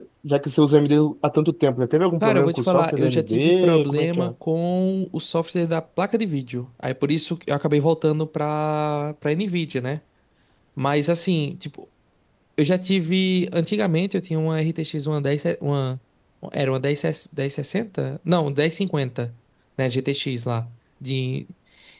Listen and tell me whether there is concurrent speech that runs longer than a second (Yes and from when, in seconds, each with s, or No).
Yes, from 2.2 s